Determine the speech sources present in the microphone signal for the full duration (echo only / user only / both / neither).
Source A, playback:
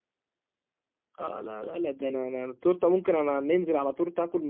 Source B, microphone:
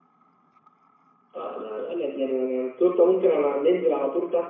echo only